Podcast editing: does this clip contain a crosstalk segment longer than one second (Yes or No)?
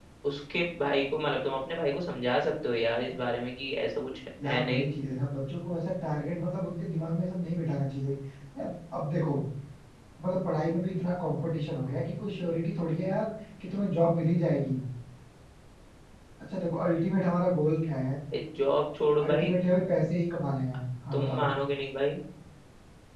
No